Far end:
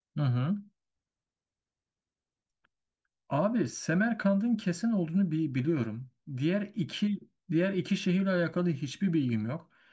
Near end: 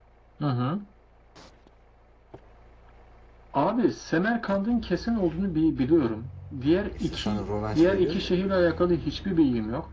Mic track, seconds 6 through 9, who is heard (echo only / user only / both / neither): both